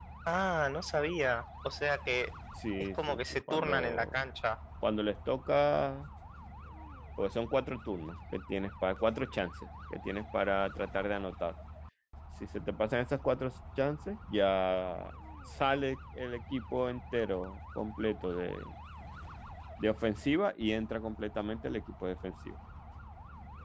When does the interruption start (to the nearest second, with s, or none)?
3 s